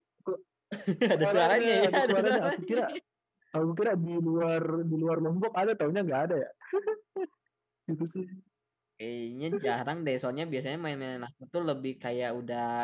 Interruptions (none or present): present